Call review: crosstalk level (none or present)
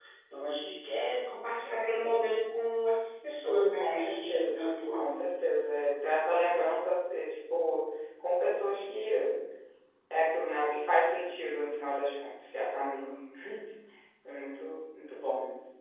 present